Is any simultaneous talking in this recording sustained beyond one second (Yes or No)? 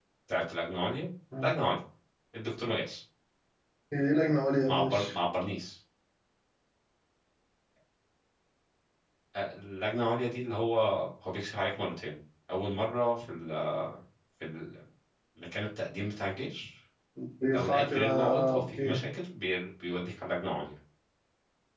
Yes